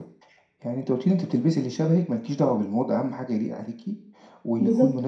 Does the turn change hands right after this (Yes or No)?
No